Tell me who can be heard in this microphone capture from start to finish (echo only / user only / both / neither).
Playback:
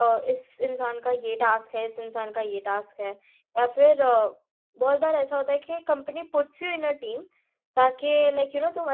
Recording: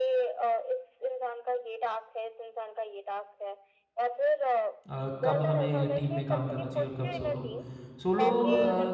both